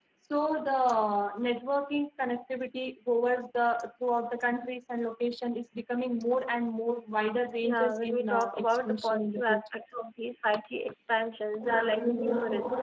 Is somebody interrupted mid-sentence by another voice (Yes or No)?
Yes